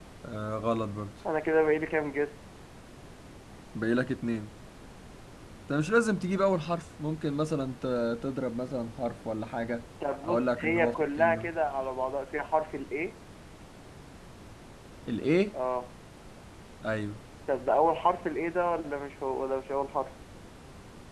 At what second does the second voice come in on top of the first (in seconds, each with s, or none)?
10.2 s